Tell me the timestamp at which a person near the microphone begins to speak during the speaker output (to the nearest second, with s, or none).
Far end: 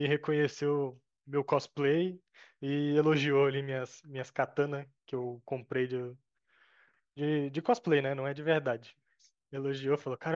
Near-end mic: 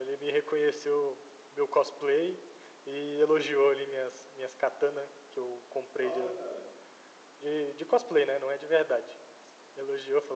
6 s